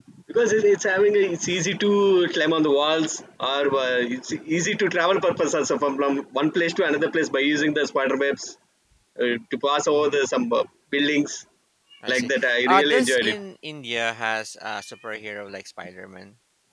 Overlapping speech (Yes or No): Yes